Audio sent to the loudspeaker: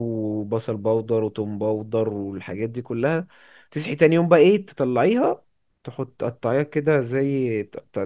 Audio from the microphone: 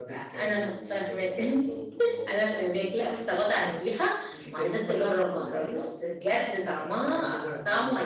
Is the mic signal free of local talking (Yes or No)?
No